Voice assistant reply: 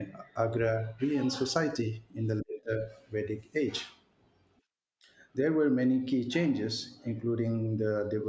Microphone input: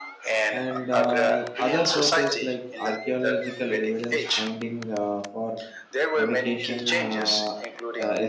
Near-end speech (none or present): present